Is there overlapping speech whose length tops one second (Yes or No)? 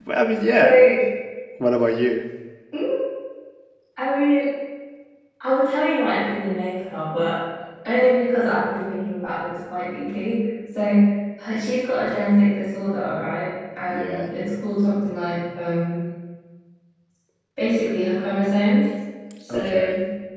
No